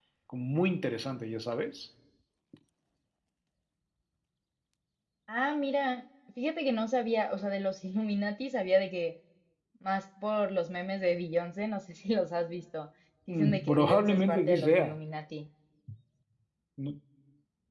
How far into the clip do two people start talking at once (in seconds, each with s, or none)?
13.3 s